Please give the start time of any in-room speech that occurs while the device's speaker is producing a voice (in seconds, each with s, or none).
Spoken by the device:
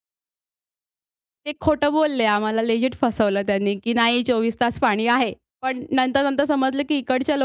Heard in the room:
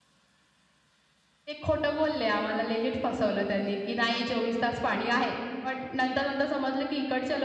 none